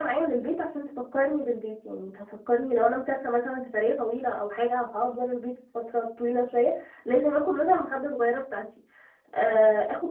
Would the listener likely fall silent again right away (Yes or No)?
Yes